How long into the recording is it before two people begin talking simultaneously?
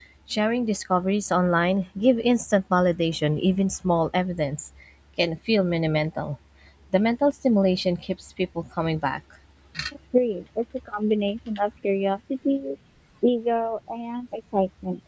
none

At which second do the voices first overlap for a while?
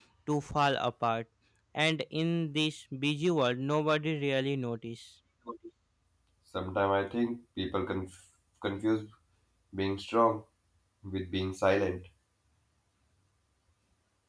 none

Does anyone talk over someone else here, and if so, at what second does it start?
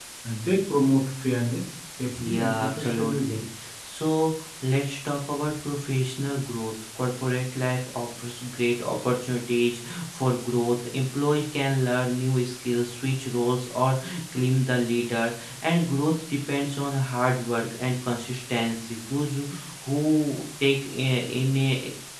2 s

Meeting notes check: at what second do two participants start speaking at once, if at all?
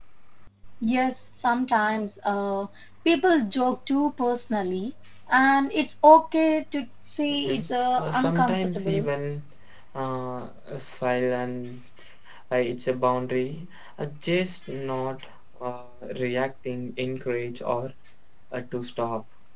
7 s

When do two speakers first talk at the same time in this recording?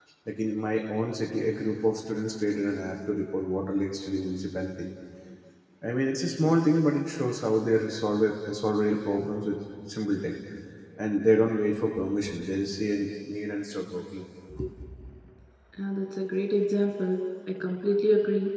none

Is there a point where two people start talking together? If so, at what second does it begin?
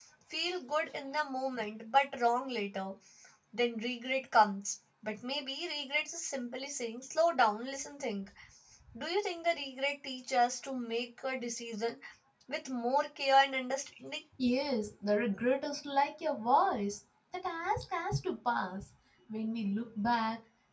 none

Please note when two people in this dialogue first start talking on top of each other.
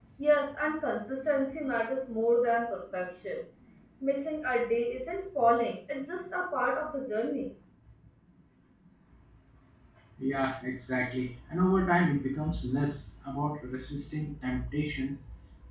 none

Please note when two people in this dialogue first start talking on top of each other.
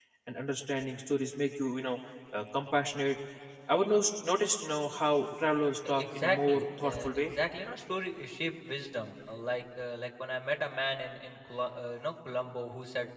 6 s

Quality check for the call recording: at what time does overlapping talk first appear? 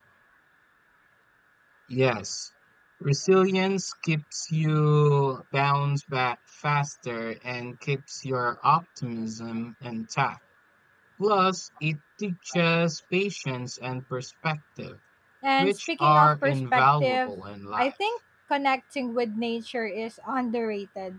16 s

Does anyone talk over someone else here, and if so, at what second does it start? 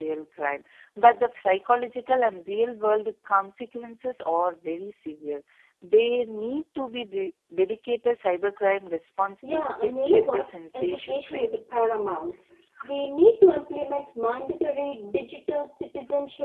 9 s

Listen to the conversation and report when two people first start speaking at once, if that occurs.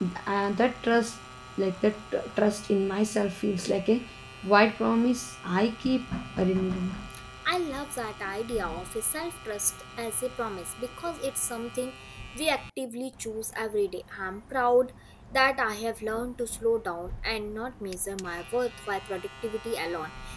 none

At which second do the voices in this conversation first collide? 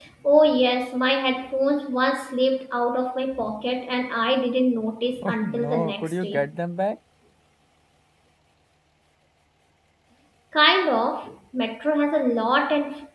5 s

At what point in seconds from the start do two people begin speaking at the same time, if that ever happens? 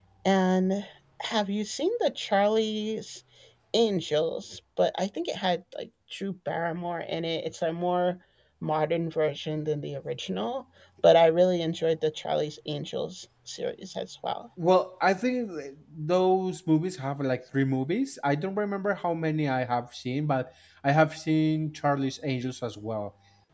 none

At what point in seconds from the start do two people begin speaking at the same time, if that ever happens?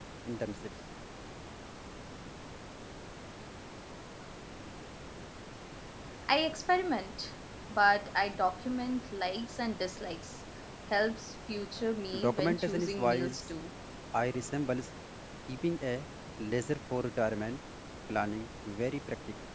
12 s

